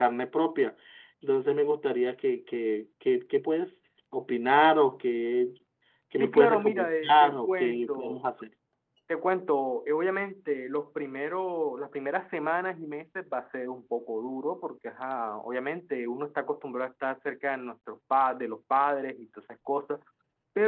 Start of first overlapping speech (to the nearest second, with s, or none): 6 s